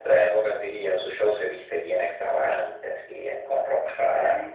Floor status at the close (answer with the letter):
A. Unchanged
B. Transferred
B